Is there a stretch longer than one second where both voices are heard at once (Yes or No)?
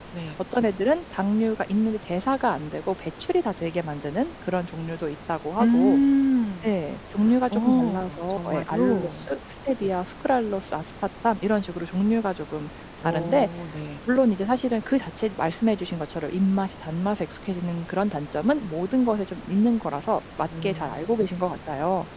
Yes